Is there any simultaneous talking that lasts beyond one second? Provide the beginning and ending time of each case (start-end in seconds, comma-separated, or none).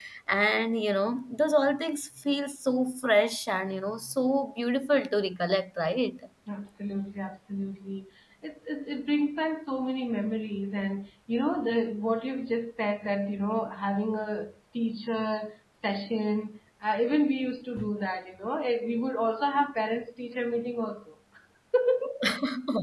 none